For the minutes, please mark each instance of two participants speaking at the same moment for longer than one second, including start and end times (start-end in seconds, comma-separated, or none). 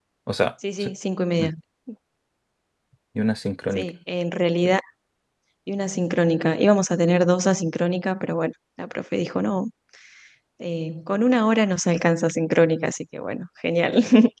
none